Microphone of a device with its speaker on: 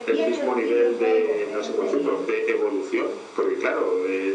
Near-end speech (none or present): present